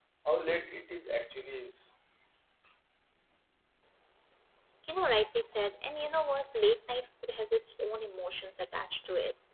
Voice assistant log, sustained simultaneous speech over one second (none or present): none